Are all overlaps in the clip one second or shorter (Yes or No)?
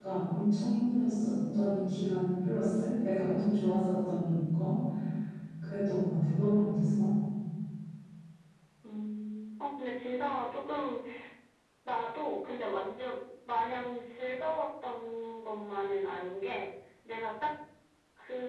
Yes